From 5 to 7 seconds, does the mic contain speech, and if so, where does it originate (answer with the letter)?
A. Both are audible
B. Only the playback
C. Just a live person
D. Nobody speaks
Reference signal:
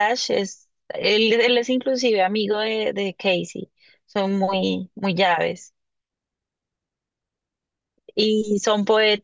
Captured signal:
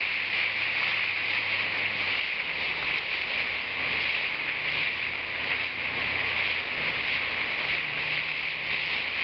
D